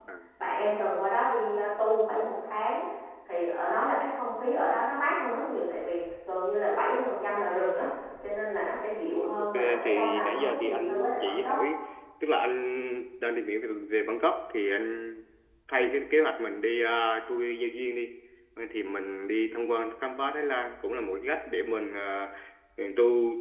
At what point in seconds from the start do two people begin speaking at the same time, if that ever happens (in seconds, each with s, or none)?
9.1 s